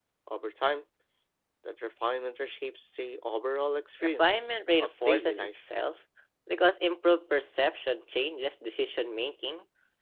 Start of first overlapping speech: 4.2 s

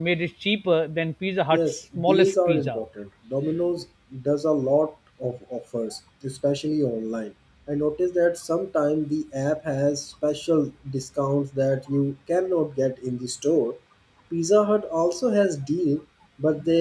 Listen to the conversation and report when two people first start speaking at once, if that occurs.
1.5 s

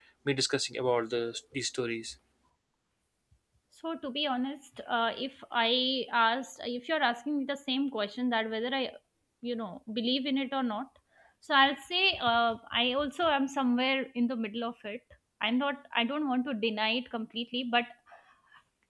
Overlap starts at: none

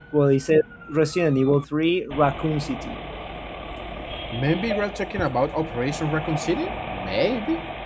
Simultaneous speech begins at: none

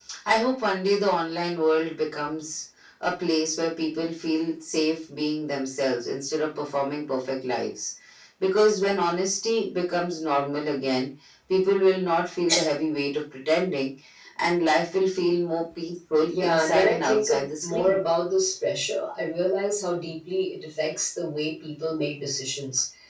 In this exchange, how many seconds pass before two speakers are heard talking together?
16.3 s

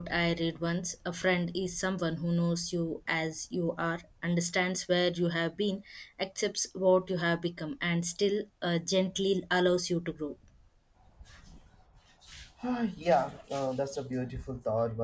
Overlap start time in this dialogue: none

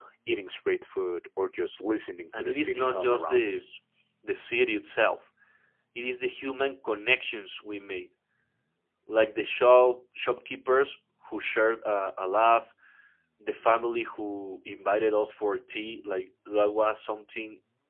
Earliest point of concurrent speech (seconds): 2.3 s

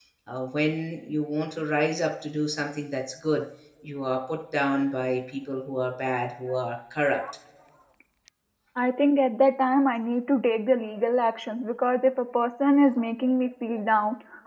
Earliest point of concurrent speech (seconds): none

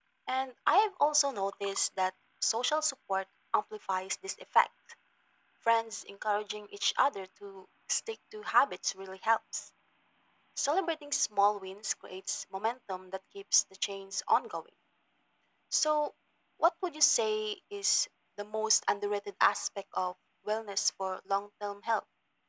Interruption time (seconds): none

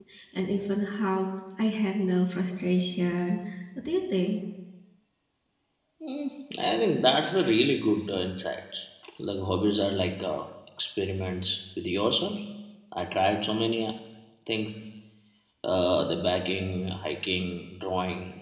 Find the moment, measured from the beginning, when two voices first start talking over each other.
none

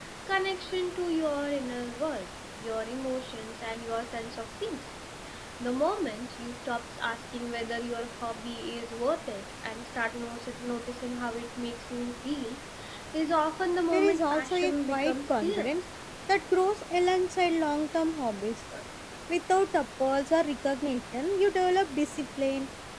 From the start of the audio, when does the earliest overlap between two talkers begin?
13.9 s

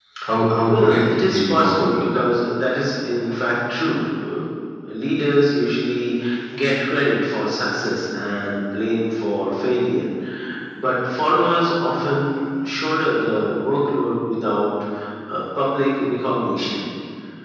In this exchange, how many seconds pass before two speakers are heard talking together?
0.7 s

